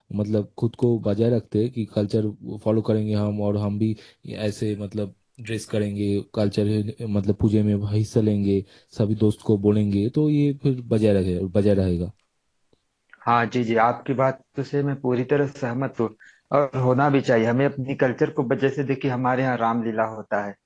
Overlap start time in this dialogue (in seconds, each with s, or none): none